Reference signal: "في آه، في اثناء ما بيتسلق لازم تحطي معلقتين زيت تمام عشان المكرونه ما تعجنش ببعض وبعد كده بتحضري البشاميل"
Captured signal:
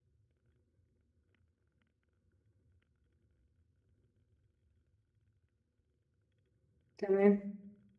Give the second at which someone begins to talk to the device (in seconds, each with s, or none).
7.0 s